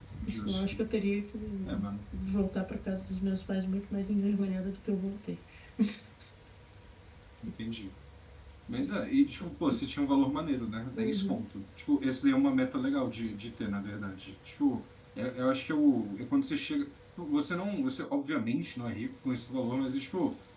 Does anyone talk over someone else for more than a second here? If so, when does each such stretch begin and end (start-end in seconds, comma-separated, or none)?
none